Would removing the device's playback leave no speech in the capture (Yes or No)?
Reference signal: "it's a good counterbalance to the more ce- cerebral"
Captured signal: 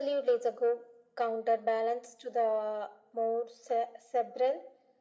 Yes